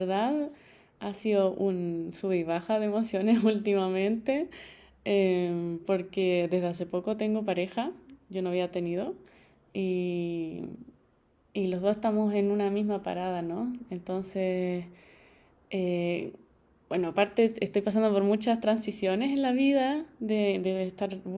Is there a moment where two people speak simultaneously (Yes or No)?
No